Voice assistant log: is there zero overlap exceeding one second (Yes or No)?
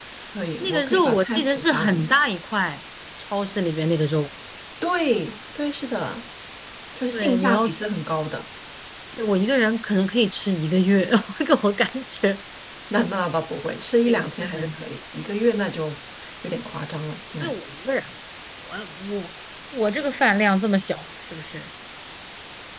No